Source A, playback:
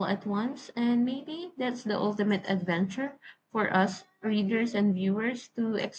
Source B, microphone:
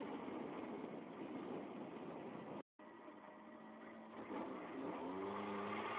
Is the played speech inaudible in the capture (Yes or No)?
Yes